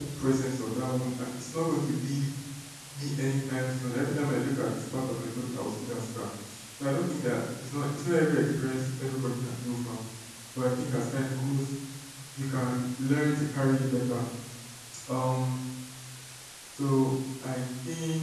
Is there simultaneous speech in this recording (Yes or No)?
No